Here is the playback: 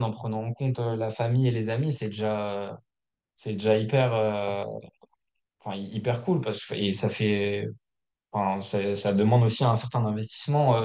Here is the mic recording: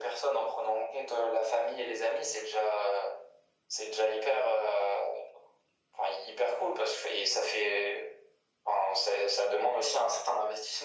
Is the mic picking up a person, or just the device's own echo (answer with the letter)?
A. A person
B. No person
B